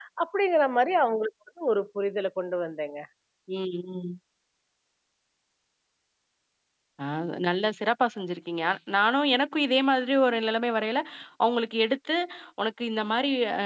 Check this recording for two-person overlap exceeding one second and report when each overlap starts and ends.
none

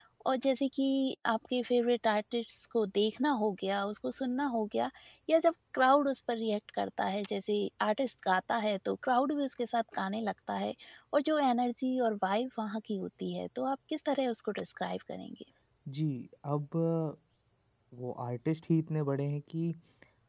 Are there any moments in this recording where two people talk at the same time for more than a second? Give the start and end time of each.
none

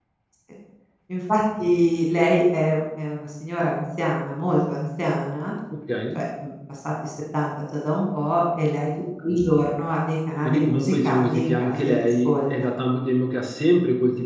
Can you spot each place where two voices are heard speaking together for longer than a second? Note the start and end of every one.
10.4-12.7

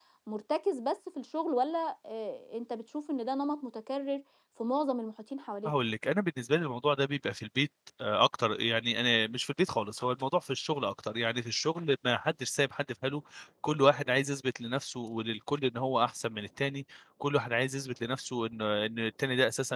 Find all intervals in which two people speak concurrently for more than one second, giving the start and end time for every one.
none

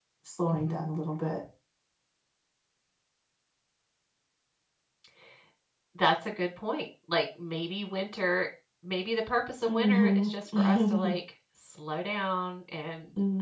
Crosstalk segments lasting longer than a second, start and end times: 9.7-11.2

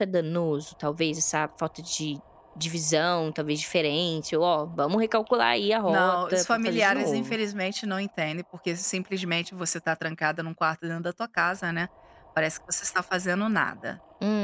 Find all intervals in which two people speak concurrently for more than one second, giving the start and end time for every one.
5.9-7.3

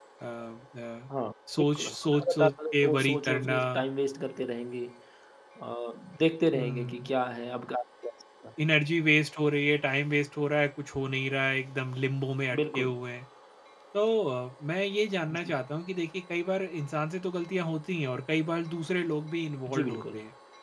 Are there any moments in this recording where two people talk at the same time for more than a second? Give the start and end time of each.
1.8-3.5

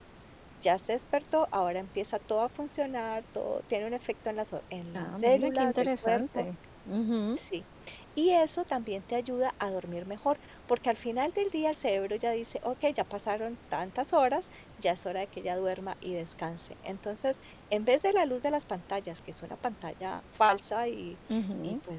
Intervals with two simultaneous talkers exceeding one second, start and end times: 5.0-6.5

